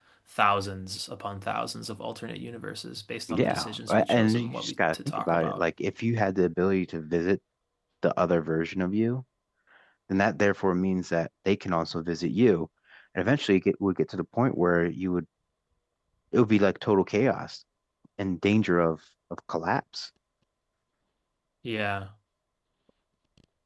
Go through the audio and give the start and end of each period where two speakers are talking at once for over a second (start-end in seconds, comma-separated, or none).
3.3-5.6